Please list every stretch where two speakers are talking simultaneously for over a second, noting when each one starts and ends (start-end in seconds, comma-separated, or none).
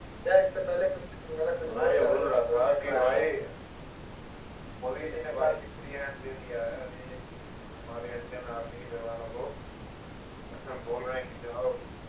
1.7-3.2